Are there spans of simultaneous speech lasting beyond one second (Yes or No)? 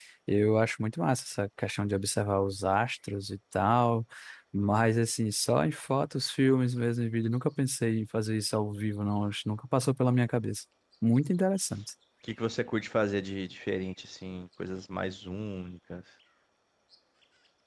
No